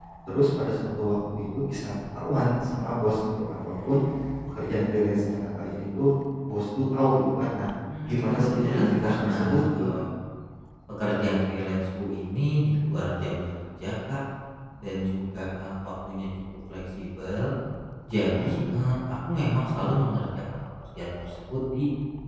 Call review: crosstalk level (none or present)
present